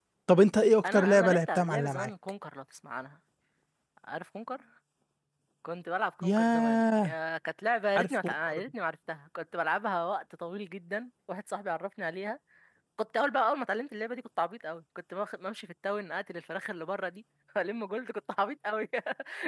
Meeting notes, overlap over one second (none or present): present